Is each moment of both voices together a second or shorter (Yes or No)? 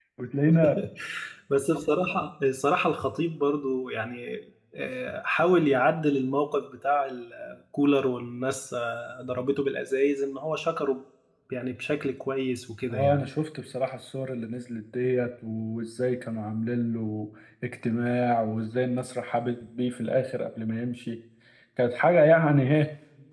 Yes